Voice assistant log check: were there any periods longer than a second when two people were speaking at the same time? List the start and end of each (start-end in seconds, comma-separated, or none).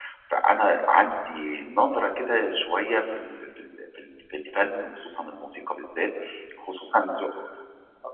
none